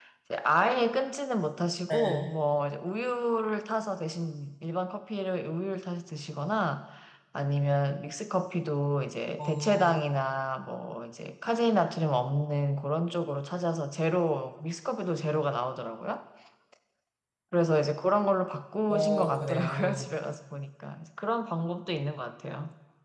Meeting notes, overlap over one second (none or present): present